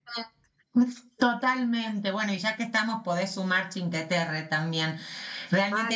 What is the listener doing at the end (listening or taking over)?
listening